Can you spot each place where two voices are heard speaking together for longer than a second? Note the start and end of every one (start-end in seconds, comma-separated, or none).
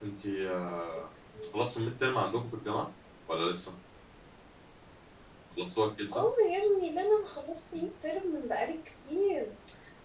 none